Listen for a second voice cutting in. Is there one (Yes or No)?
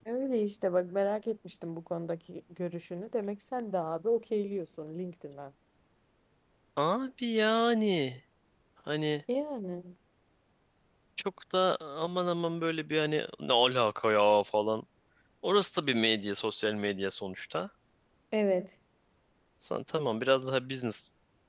No